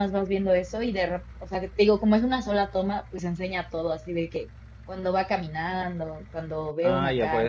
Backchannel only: No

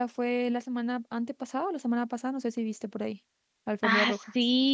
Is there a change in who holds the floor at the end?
Yes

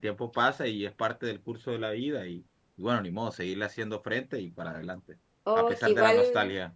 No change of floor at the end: No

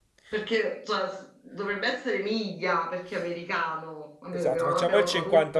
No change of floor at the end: No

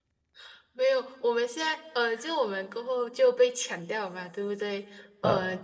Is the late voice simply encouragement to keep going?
Yes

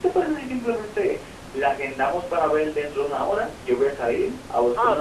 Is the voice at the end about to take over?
Yes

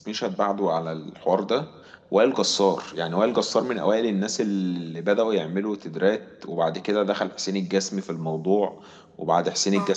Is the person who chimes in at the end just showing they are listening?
Yes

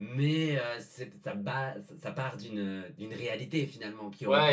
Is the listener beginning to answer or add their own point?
Yes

